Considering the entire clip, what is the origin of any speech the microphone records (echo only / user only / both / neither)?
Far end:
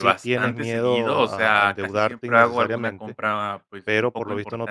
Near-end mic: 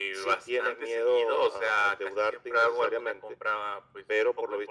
echo only